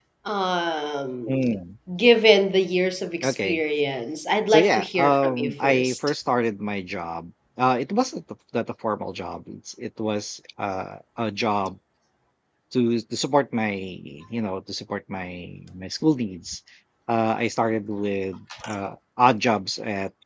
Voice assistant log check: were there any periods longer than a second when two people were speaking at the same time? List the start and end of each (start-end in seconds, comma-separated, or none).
4.5-6.0